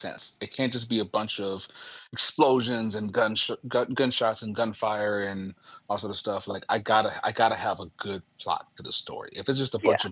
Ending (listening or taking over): listening